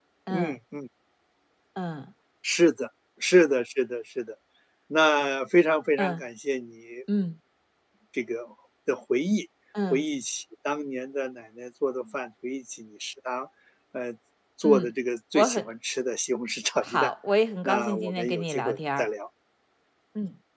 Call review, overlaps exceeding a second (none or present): present